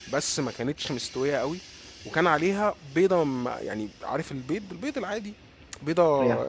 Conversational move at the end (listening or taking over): listening